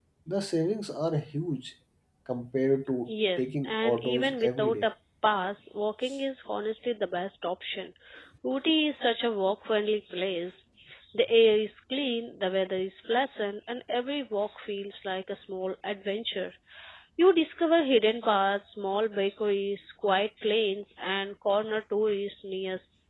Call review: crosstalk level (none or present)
present